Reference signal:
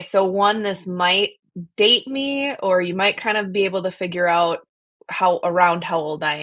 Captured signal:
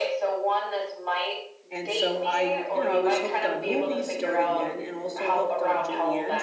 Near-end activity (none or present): present